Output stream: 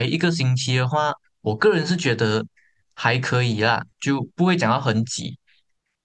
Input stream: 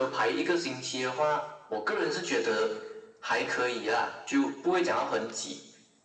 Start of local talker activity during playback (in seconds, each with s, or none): none